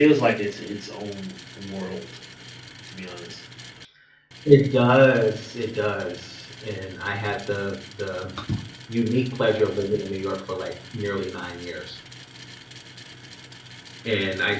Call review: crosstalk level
none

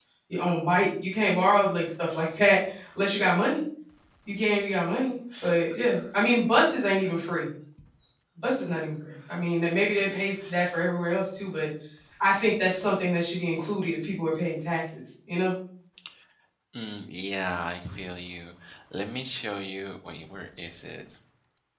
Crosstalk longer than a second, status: none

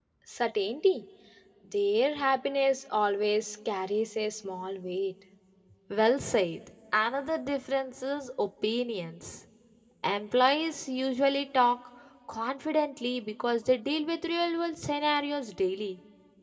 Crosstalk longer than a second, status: none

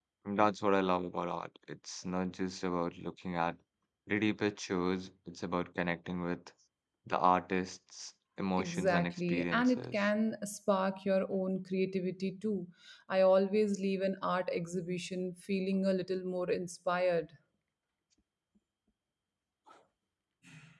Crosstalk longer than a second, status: present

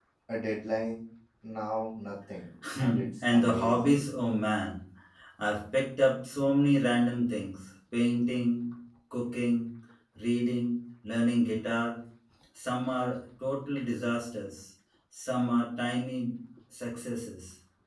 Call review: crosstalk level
present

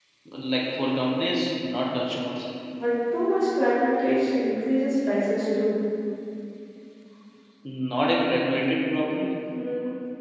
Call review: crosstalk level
none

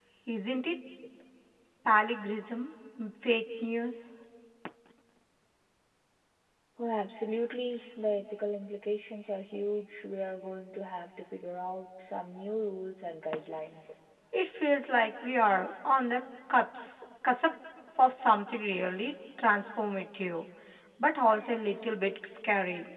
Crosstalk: none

